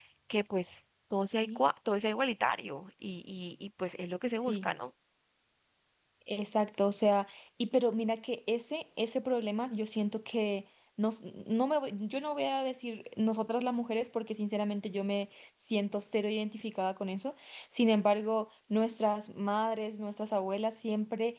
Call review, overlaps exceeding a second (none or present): none